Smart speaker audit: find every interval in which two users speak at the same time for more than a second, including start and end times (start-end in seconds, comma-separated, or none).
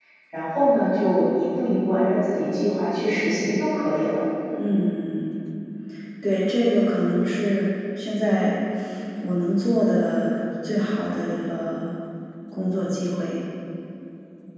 none